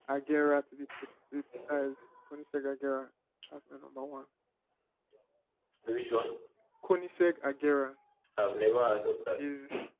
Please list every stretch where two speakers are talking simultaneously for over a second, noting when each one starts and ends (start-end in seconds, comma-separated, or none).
none